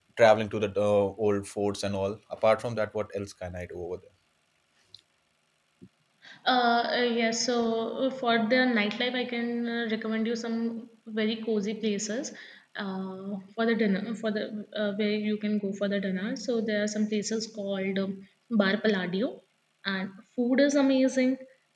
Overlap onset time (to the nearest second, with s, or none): none